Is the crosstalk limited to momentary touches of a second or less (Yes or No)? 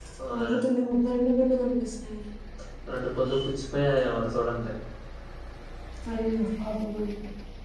Yes